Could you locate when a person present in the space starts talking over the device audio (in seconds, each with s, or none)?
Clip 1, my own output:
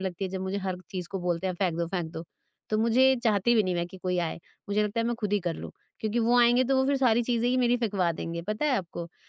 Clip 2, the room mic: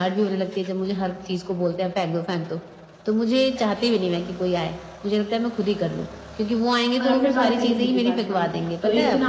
7.0 s